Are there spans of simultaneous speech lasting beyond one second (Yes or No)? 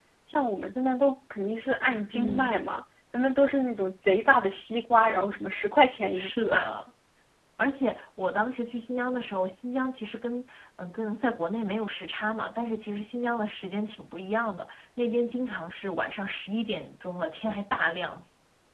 No